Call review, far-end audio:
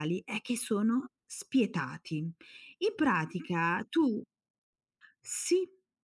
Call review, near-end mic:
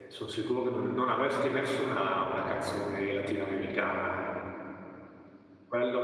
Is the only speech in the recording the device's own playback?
No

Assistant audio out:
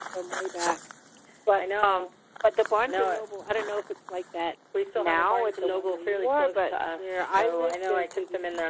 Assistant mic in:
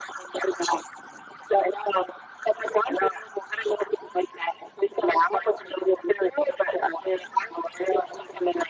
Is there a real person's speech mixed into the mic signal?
No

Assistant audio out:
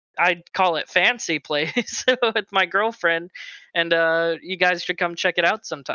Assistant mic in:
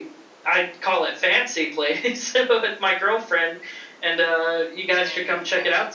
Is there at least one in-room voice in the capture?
Yes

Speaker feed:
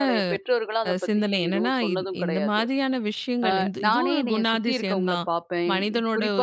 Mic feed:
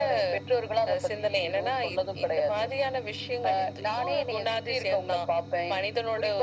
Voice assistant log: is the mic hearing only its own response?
Yes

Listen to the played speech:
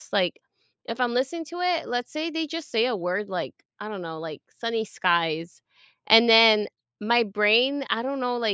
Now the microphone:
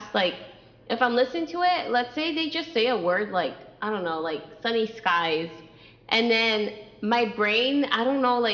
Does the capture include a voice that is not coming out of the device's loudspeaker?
No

